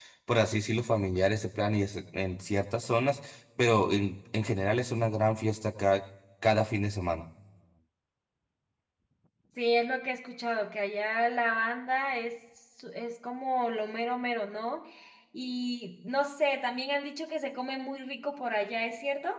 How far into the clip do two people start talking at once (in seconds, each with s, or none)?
none